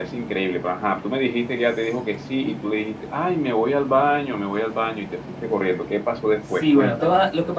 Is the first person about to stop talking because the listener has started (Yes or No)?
Yes